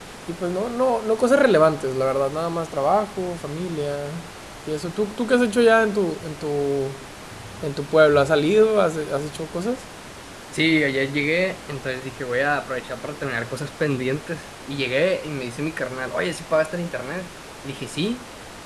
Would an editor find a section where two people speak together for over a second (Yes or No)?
No